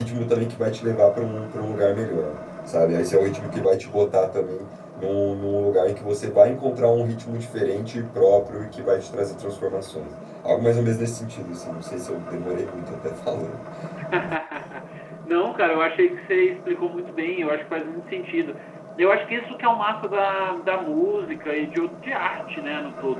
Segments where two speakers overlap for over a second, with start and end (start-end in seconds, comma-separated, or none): none